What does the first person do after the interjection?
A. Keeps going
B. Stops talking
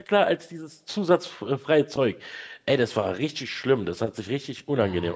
B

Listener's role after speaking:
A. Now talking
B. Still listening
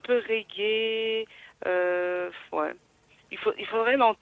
B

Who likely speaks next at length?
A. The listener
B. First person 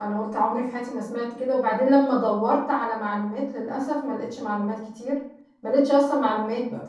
B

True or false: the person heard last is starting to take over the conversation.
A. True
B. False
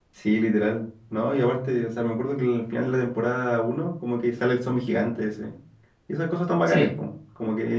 B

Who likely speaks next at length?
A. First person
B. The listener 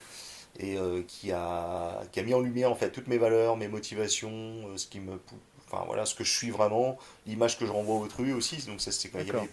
A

